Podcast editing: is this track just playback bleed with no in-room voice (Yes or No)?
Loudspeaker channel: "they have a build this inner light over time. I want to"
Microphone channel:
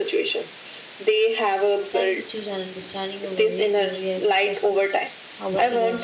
No